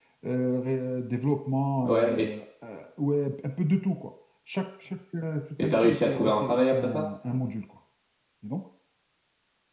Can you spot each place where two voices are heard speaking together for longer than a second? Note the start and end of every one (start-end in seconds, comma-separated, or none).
5.6-7.0